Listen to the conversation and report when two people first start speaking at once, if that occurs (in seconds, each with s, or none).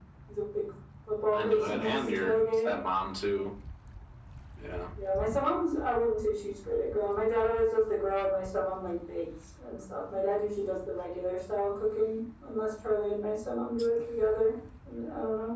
1.3 s